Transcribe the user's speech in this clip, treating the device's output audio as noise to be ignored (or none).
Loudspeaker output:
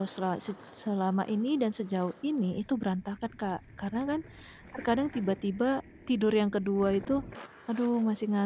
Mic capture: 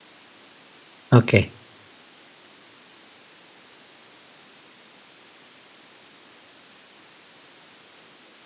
oke.